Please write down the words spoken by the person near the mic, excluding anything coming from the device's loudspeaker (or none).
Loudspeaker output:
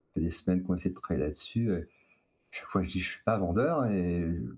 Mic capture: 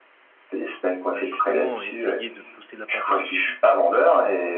bah, justement essayer de pousser la porte de sortie